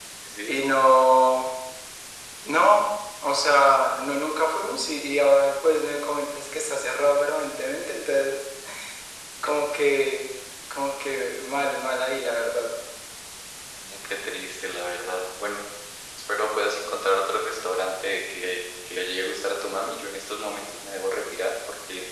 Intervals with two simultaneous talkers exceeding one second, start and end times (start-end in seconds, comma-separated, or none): none